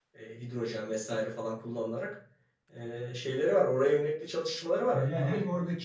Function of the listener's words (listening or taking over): taking over